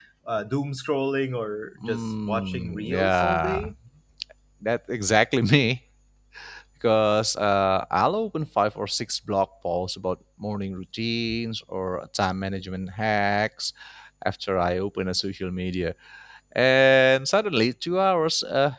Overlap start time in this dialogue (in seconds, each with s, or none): 1.8 s